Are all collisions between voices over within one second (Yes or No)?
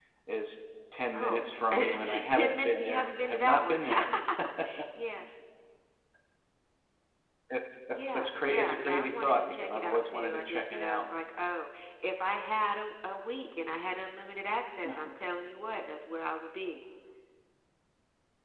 No